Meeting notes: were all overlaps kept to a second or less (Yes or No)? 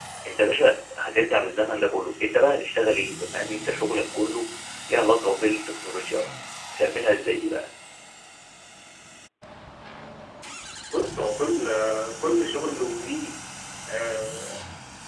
Yes